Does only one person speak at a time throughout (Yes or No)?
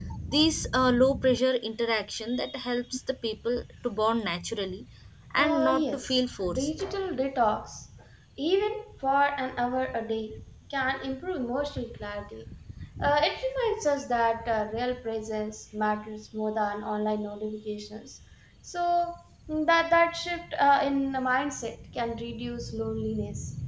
No